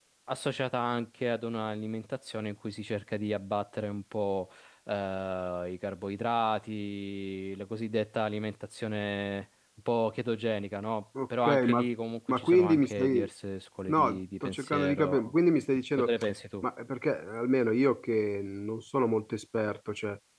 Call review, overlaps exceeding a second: present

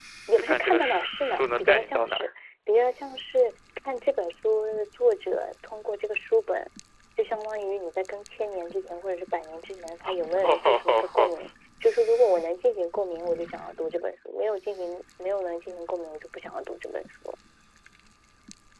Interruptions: present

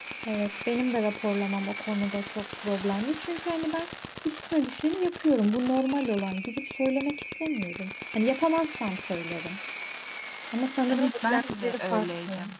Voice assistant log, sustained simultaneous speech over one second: present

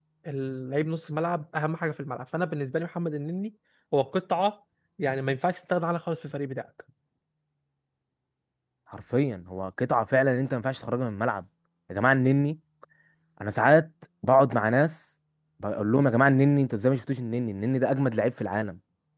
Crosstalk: none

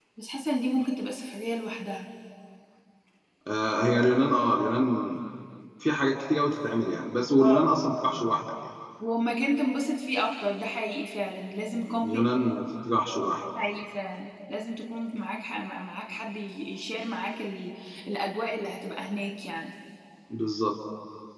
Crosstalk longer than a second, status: none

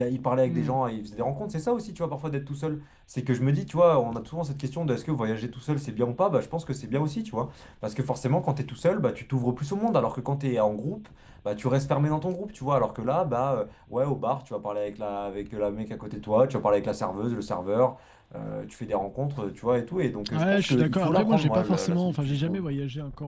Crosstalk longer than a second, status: present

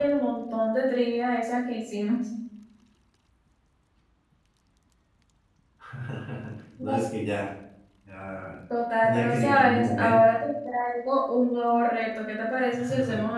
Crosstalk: present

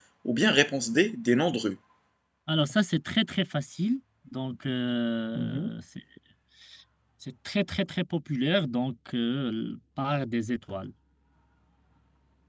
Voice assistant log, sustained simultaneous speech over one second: none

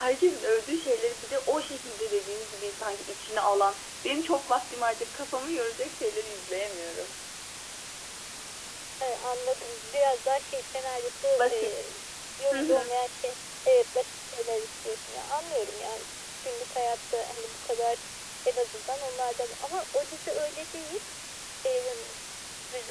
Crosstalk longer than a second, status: none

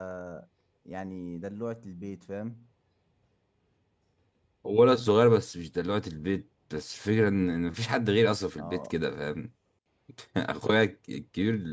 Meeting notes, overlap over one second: none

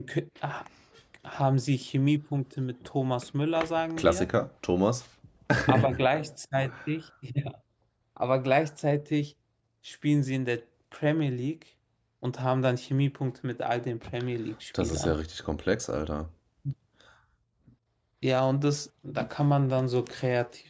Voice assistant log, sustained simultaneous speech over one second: none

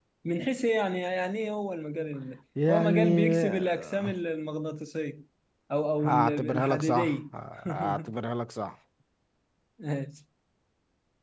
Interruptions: present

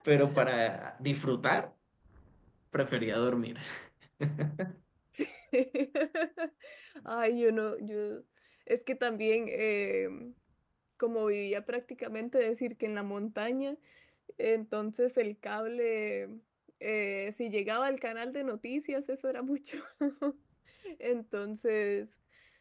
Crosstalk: none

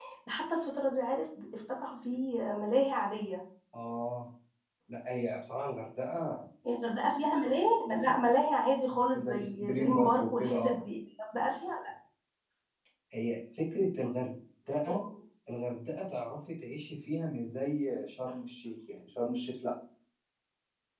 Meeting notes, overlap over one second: present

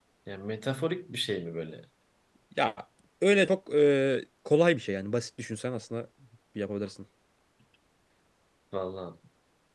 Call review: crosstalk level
none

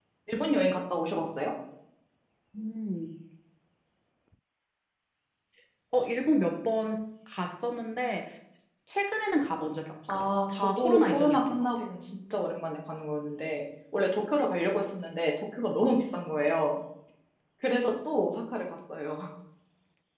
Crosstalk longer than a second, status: present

